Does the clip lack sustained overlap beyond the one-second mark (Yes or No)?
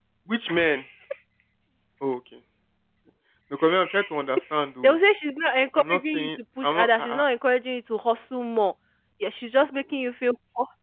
No